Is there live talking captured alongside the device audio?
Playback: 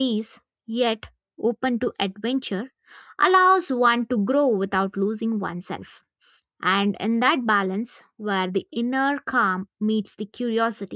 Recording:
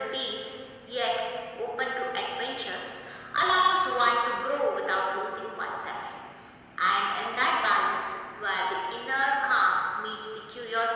No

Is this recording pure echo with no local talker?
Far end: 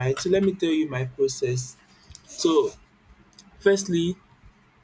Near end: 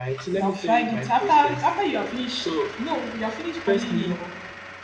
No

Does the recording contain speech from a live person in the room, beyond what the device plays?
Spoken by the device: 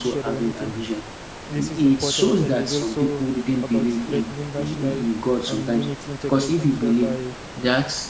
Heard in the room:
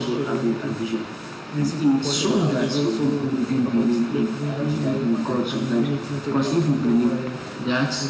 Yes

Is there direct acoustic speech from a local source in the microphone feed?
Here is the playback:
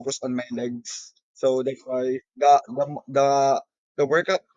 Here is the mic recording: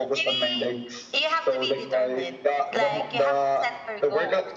Yes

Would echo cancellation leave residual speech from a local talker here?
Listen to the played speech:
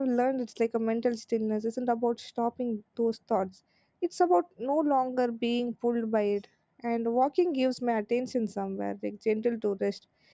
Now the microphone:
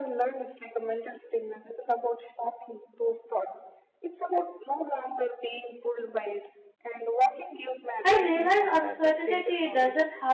Yes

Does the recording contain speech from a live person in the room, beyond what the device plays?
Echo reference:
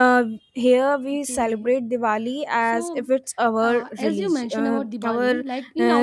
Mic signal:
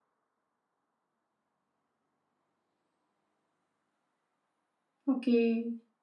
Yes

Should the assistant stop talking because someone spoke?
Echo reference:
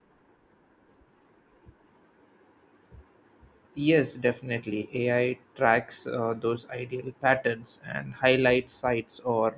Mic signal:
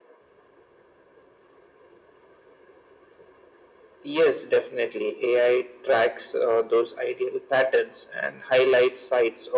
No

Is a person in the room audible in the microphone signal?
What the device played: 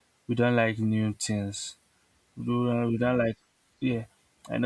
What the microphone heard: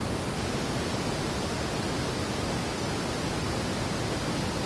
No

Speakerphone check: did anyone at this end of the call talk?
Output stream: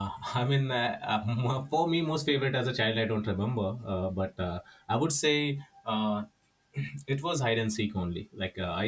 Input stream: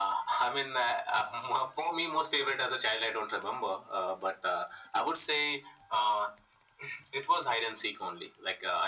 No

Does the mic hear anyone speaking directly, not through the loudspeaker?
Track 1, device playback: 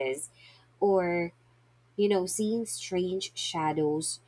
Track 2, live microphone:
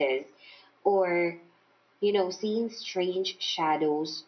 No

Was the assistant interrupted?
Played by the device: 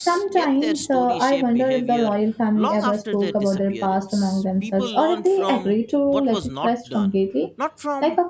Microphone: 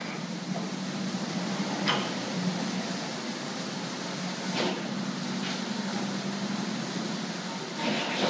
No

